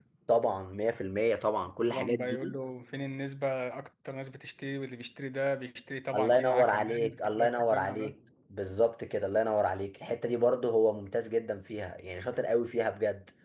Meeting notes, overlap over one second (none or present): present